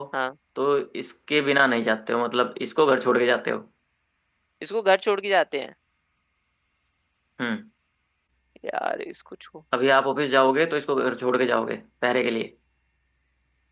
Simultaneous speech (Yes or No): No